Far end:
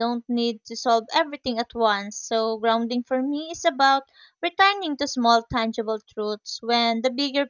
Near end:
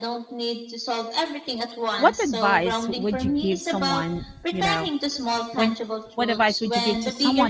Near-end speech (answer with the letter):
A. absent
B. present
B